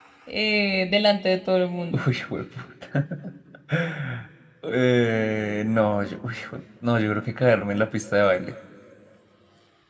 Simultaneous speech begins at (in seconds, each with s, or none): none